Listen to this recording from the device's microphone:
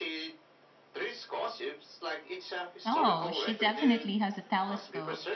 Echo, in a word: present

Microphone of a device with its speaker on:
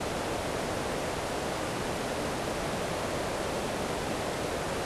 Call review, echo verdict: none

